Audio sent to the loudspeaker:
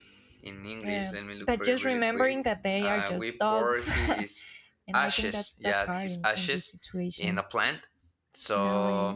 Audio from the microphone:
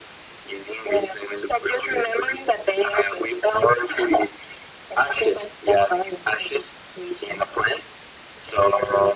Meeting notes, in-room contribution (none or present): none